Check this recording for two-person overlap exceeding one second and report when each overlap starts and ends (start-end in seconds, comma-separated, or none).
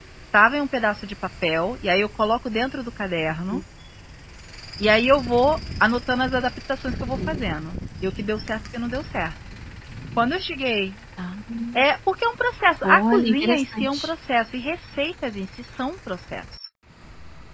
12.8-14.1